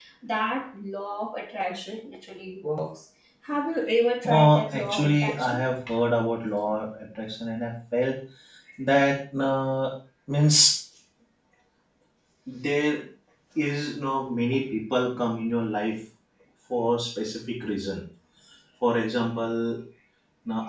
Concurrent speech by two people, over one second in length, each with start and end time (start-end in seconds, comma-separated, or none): 4.2-5.6